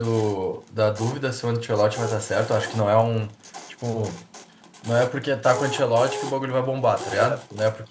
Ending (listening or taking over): listening